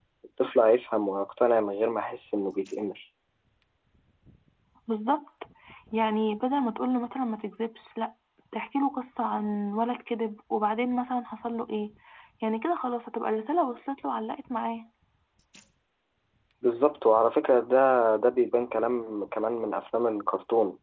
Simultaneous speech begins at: none

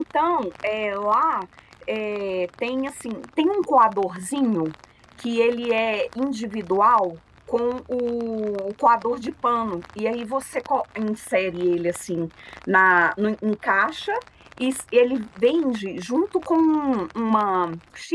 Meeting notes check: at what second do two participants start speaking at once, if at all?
none

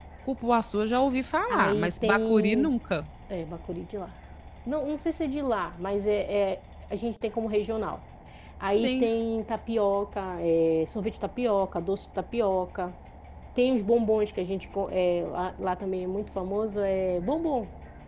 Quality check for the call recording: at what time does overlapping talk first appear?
1.5 s

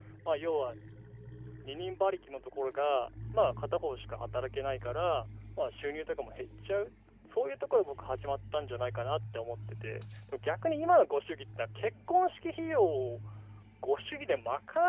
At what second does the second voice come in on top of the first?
none

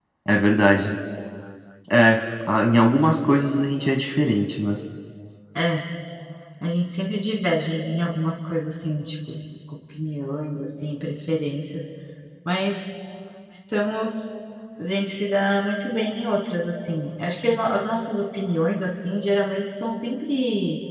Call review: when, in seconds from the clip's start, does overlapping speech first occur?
none

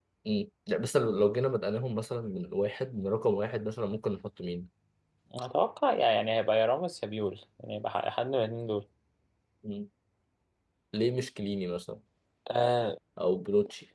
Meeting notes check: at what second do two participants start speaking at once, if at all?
none

